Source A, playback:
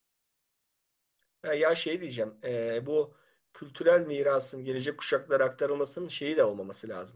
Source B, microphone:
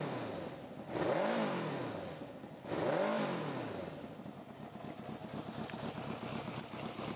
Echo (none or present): none